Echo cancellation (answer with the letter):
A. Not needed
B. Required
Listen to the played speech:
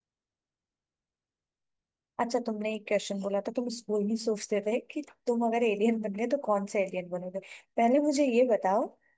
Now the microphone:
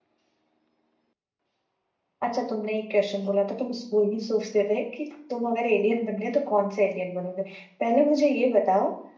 B